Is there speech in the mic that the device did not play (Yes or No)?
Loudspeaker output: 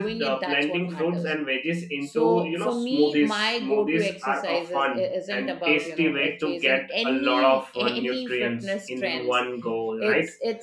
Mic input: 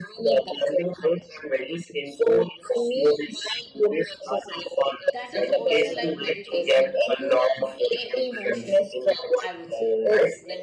Yes